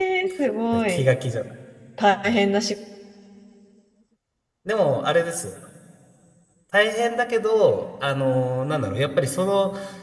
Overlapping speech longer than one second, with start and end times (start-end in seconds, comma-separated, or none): none